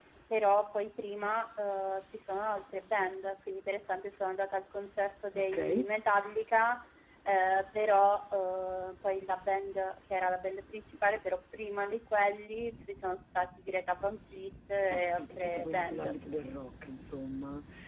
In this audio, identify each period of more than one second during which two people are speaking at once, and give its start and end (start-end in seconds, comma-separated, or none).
14.9-16.1